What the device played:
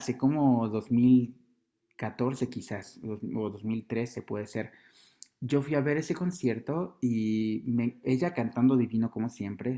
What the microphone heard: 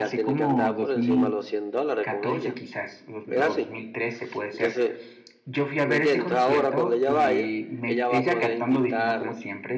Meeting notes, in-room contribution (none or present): present